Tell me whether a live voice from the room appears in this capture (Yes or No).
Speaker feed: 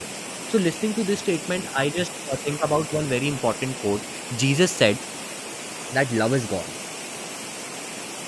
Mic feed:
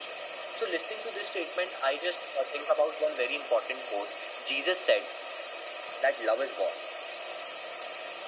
No